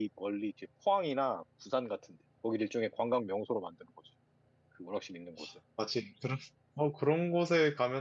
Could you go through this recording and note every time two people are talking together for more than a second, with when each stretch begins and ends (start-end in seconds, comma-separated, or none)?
none